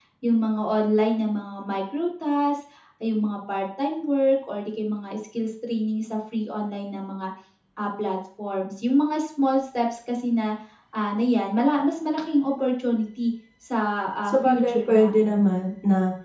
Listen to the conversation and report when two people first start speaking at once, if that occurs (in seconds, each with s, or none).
14.2 s